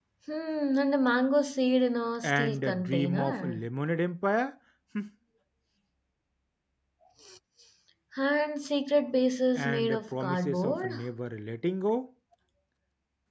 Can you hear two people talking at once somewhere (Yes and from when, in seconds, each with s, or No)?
Yes, from 2.2 s